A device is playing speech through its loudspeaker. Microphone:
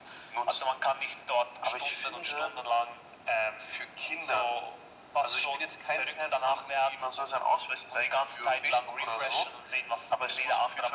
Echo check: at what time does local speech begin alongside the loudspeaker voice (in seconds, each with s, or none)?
none